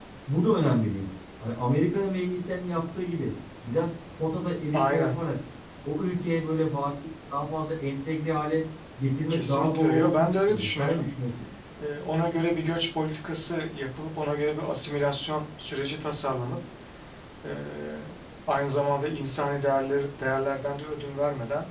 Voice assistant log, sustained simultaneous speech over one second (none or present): present